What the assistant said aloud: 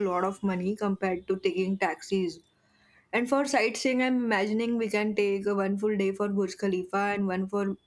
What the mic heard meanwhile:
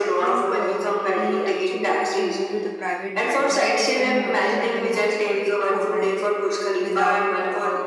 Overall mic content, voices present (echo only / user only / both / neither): both